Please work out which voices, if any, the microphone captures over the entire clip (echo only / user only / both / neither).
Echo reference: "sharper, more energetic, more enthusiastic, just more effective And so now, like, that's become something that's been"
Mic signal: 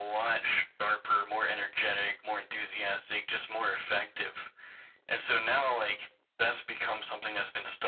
echo only